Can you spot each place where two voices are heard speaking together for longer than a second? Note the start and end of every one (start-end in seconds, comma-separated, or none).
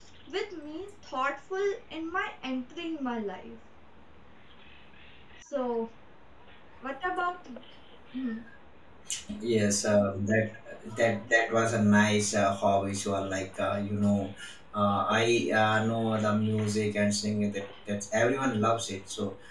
none